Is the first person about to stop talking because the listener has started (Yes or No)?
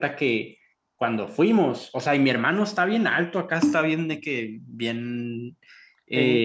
No